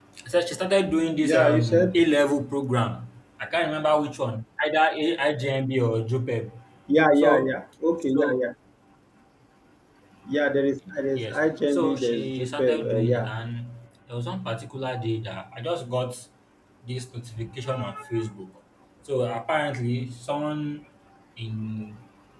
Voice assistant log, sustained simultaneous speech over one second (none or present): present